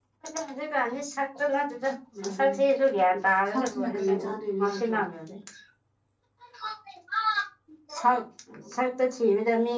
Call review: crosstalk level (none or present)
present